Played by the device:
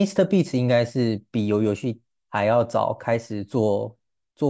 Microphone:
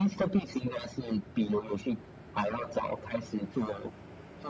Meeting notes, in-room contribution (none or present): none